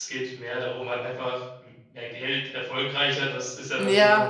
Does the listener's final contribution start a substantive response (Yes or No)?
Yes